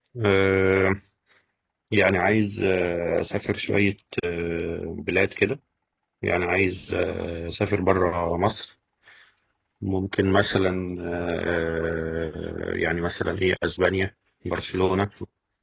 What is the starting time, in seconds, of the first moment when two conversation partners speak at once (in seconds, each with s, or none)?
none